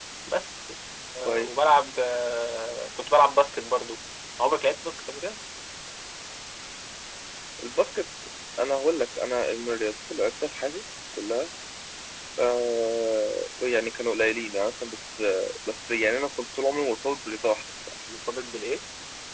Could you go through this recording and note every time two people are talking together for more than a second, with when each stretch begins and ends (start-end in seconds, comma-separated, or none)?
none